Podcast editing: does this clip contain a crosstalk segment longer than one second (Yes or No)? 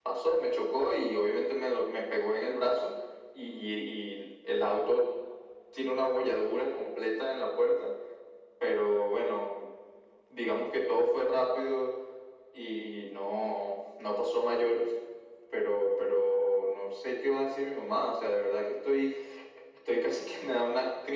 No